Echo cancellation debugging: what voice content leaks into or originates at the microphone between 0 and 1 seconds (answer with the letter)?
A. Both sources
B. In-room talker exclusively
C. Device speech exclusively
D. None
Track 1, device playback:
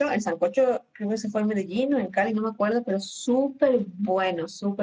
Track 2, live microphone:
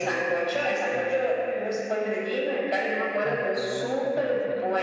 A